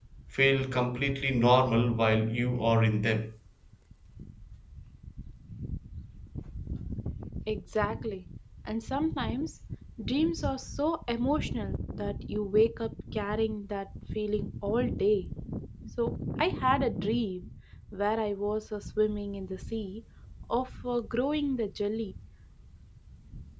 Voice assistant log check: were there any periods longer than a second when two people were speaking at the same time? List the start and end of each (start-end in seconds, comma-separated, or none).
none